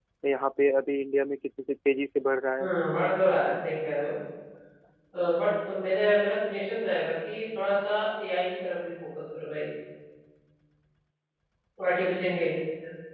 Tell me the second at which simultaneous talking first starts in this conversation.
none

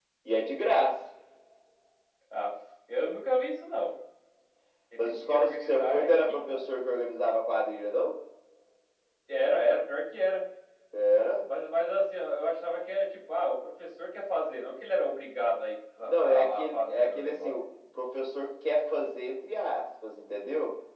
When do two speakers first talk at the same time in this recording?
5.0 s

